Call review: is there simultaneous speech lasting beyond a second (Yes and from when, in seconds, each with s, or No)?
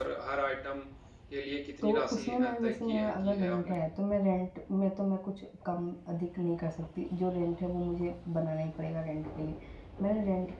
Yes, from 1.8 s